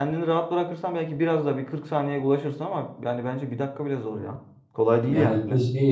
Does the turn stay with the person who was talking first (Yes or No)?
No